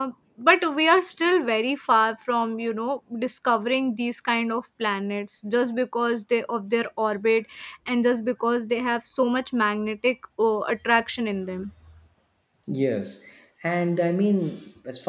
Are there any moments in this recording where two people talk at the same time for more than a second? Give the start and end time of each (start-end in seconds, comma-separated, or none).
none